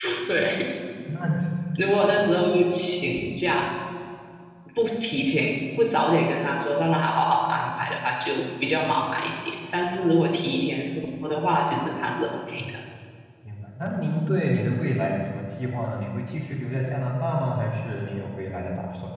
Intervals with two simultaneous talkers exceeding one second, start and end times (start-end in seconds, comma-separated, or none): none